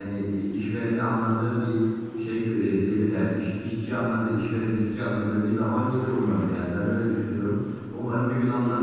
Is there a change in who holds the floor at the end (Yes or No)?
Yes